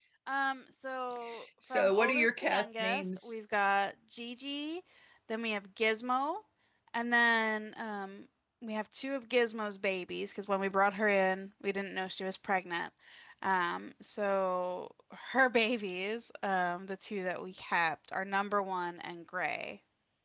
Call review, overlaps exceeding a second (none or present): present